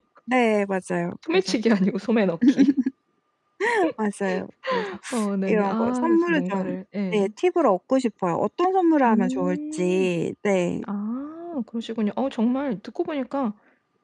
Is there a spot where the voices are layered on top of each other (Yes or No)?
Yes